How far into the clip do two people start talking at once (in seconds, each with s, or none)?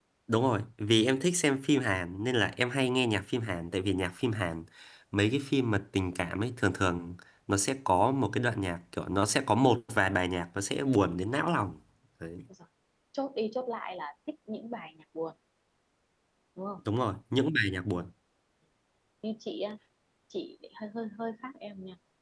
none